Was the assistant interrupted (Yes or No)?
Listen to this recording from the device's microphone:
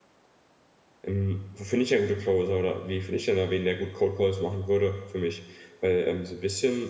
Yes